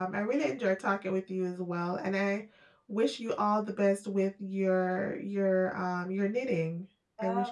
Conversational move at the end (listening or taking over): taking over